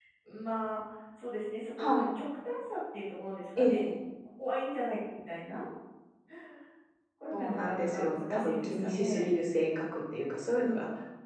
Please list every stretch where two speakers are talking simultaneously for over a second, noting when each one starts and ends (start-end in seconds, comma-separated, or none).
7.3-9.3